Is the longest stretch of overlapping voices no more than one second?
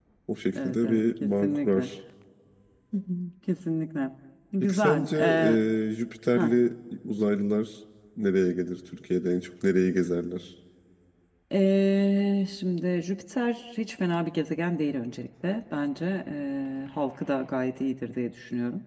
No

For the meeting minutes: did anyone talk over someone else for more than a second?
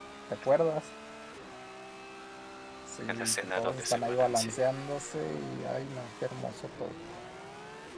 Yes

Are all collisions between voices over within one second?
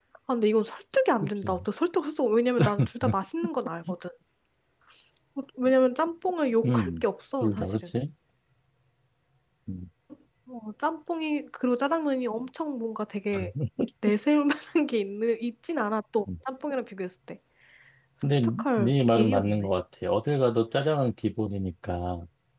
No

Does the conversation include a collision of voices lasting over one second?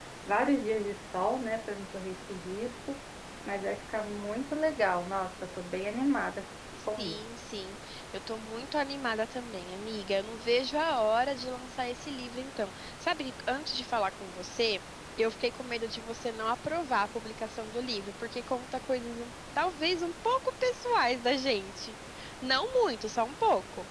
No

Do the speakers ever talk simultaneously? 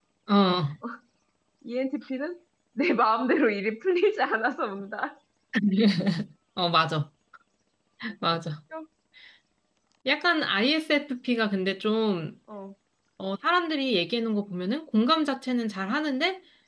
No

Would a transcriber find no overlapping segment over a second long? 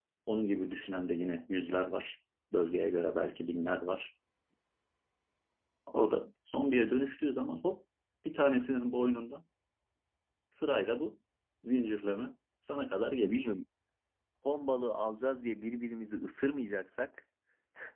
Yes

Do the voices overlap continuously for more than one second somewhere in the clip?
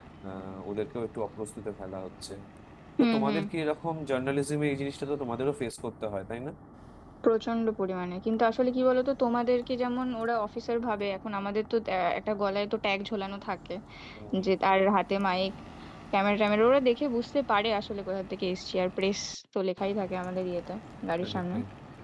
No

